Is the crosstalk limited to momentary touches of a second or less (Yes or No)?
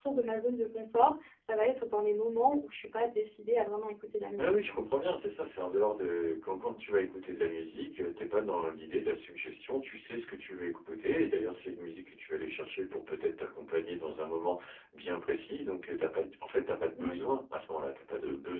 Yes